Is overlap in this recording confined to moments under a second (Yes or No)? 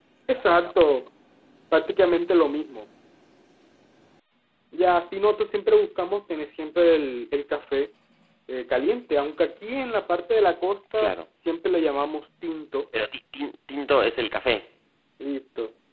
Yes